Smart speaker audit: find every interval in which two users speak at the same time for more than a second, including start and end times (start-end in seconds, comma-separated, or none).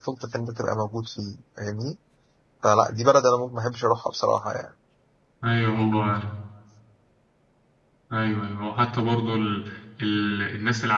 none